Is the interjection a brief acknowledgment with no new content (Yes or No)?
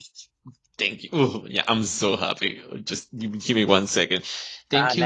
No